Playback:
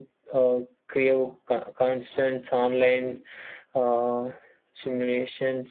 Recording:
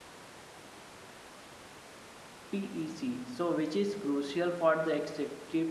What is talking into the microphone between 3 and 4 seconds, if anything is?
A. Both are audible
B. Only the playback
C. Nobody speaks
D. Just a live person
D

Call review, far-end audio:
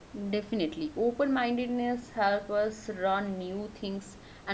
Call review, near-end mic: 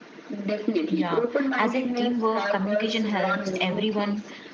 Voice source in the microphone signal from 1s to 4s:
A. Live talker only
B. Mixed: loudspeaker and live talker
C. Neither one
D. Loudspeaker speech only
B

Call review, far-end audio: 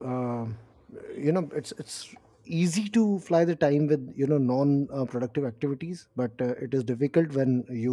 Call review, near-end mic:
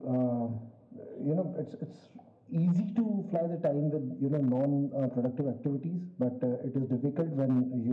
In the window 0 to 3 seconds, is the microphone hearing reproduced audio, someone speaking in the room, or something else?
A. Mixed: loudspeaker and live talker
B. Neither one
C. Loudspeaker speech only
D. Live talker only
C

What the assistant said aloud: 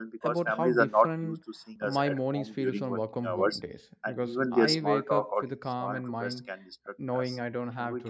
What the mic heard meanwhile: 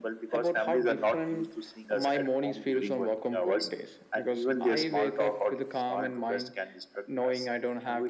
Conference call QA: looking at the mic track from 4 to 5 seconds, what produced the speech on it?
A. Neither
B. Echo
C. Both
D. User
B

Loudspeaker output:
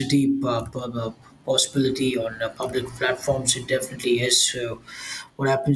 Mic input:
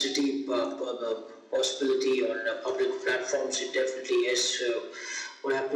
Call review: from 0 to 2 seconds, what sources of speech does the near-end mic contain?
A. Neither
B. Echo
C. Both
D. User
B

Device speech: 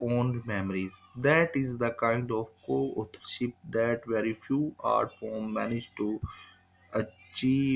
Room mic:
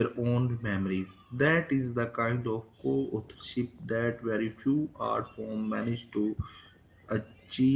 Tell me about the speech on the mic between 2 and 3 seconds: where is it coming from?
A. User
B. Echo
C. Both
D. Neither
B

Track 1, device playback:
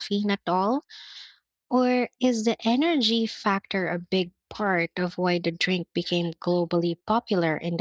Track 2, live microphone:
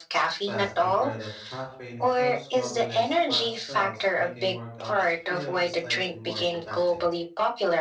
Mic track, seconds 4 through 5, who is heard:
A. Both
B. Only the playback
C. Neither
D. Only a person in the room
A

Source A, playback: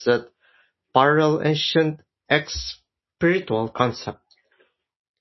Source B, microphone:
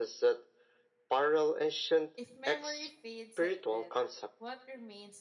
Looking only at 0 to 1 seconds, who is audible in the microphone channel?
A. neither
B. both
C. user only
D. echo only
D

